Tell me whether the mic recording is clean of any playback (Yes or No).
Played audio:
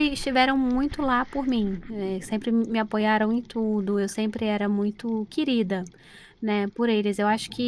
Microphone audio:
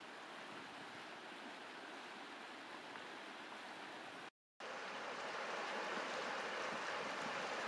Yes